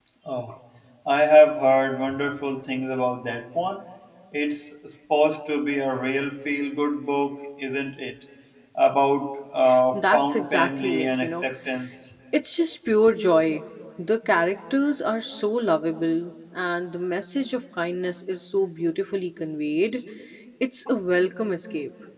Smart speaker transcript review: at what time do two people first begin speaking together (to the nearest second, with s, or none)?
10 s